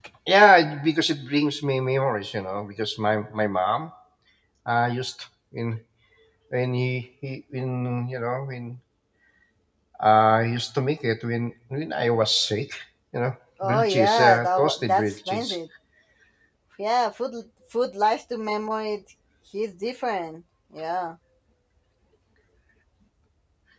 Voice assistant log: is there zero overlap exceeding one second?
No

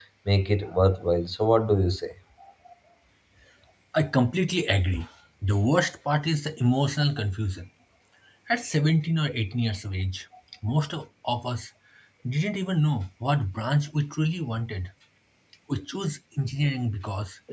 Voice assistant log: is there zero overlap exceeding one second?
Yes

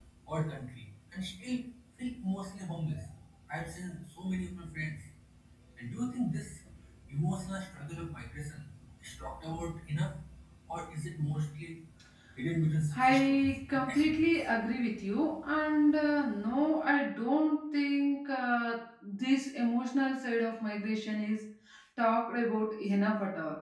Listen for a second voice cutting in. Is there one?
Yes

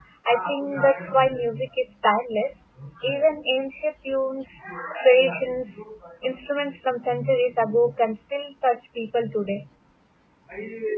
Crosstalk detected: No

